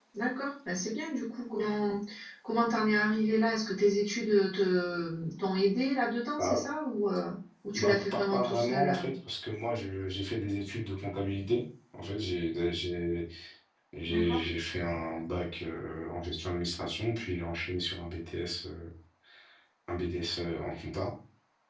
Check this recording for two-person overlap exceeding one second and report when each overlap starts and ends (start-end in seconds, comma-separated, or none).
7.8-9.0